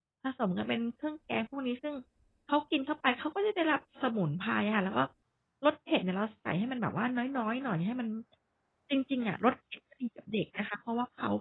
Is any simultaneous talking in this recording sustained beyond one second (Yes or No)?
No